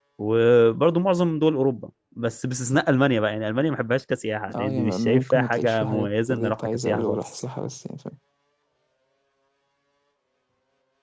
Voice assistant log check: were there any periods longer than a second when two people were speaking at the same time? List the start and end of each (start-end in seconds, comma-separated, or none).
4.5-7.4